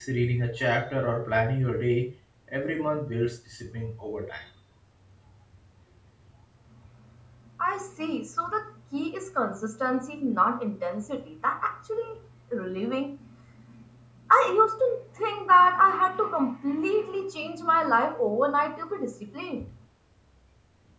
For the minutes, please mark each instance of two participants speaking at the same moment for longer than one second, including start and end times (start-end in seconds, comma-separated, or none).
none